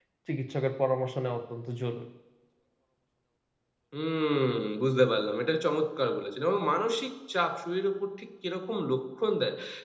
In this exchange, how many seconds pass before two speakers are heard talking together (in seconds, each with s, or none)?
none